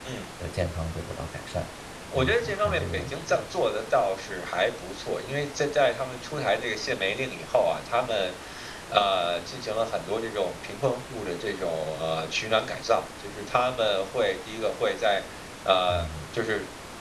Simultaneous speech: Yes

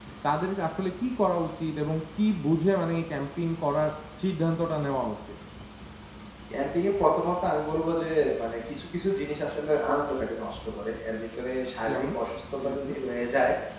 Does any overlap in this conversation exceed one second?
No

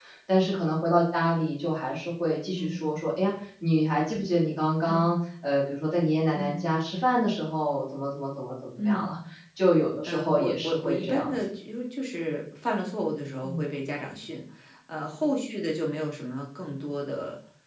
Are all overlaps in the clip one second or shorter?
No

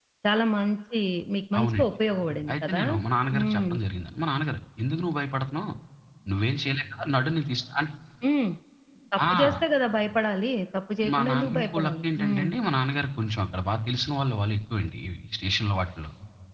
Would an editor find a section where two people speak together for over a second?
Yes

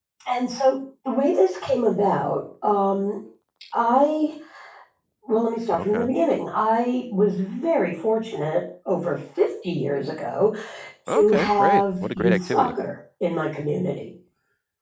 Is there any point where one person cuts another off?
Yes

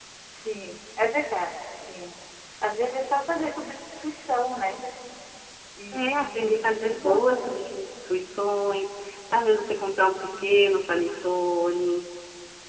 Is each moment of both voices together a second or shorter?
No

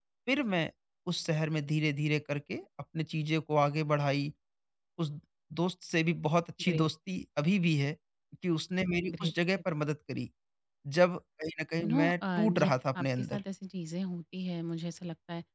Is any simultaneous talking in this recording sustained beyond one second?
Yes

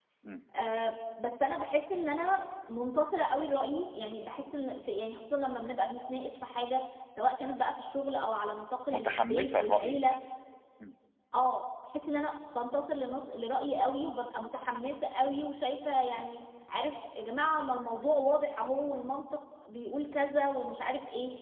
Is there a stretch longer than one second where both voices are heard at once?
Yes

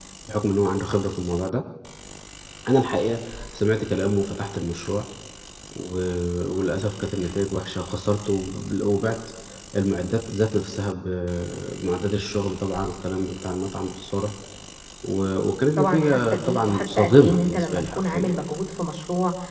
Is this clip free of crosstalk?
No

